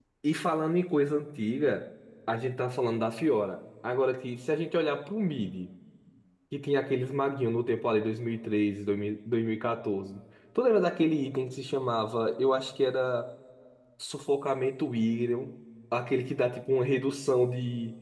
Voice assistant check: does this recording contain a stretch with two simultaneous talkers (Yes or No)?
No